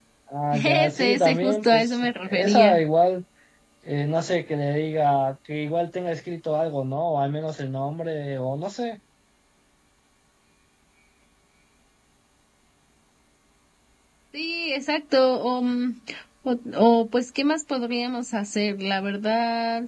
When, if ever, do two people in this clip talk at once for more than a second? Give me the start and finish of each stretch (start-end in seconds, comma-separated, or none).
0.5-2.8